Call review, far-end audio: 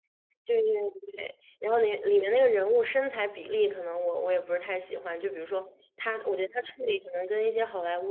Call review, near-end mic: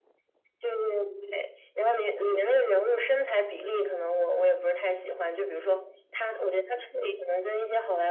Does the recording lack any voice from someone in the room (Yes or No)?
Yes